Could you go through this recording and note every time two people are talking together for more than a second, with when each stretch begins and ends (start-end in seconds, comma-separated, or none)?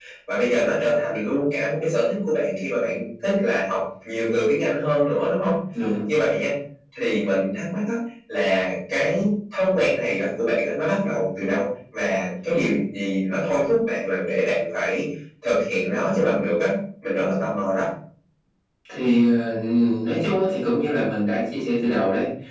none